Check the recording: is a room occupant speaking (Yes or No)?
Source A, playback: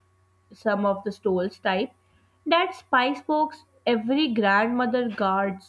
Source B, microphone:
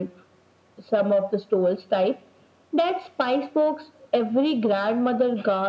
No